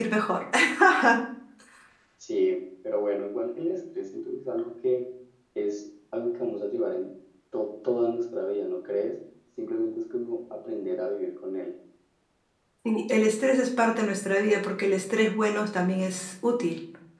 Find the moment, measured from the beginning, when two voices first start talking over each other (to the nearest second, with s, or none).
none